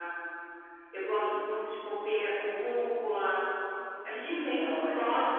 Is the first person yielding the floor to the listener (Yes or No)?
No